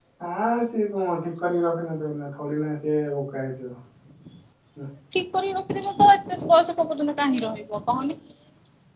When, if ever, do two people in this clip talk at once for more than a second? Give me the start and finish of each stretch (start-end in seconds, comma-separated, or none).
none